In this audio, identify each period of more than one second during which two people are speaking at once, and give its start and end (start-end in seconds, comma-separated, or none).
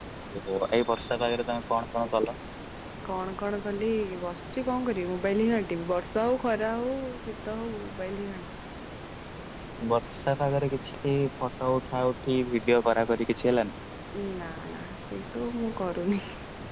none